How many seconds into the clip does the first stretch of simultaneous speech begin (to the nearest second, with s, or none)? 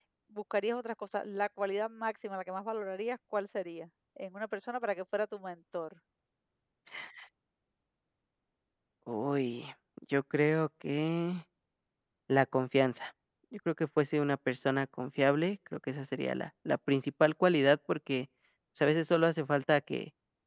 none